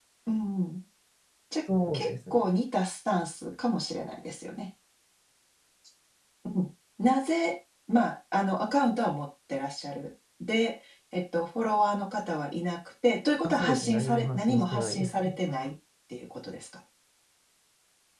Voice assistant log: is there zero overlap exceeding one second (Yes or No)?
No